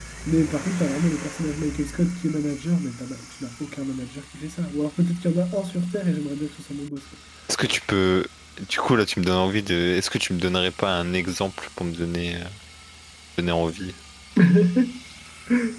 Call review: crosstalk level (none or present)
none